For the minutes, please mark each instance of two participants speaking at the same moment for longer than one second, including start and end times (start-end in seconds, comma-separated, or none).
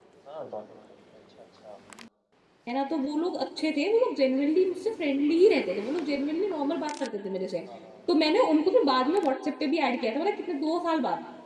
none